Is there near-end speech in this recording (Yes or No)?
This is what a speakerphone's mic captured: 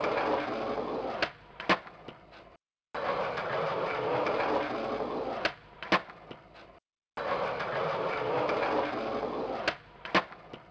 No